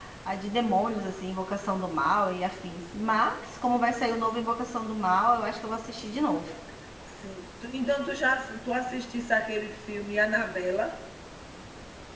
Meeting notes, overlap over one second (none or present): none